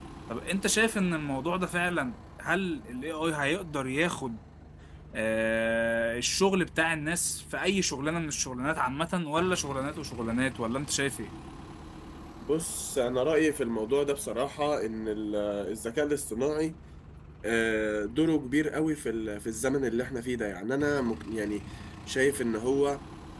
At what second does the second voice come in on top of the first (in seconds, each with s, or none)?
none